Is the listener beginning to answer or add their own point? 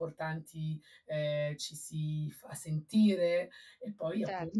Yes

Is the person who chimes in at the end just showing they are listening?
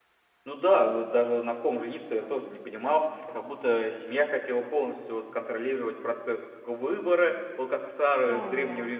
Yes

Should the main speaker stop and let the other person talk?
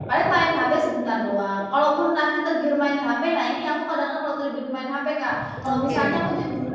No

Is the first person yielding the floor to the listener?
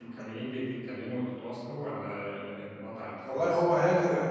Yes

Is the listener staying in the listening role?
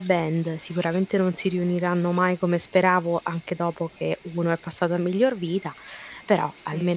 No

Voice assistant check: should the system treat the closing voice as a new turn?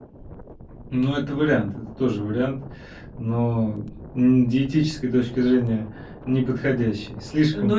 Yes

